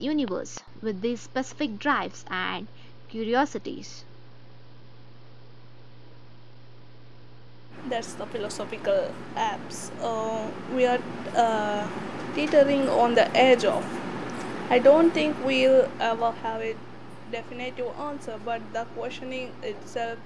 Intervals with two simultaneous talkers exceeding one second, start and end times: none

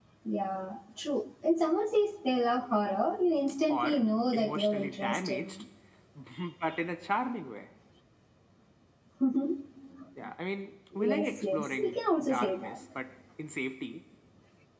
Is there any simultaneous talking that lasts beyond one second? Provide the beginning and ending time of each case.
3.7-5.6, 11.0-12.8

